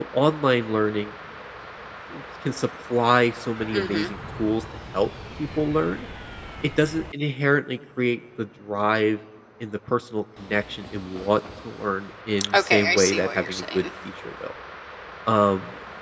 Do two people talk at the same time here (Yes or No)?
Yes